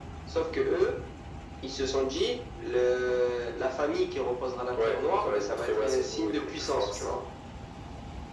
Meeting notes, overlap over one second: present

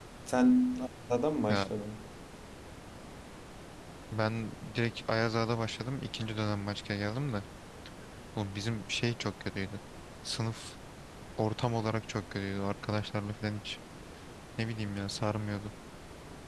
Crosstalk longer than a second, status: none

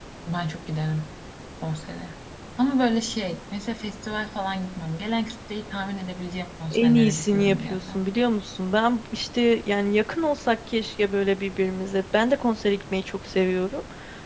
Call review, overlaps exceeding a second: present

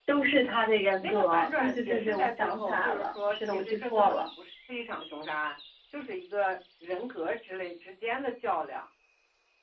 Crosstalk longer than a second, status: present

